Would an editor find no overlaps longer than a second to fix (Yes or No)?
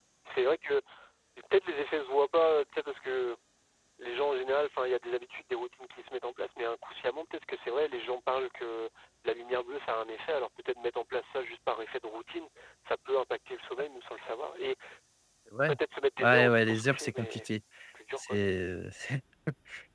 No